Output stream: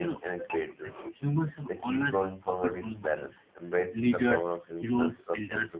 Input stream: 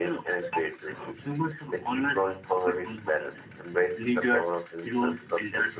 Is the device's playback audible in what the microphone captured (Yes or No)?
Yes